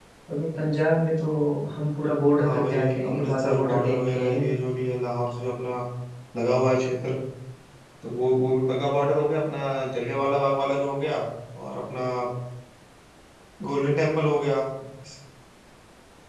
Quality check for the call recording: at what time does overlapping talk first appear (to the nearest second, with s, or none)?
2 s